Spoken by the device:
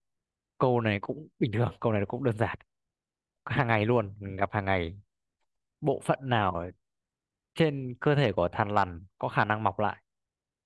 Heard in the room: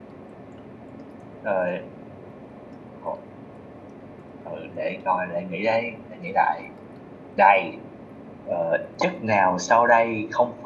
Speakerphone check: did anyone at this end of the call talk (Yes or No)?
Yes